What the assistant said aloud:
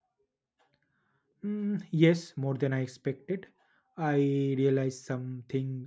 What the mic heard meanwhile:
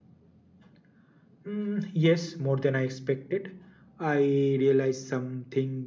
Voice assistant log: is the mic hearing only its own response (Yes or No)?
Yes